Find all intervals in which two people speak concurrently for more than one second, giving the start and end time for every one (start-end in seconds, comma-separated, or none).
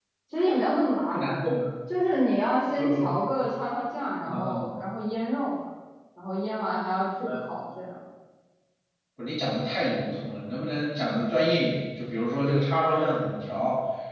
none